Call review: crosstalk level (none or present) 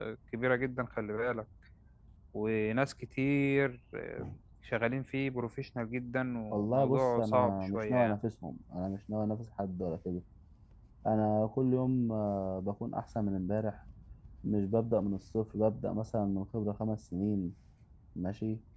present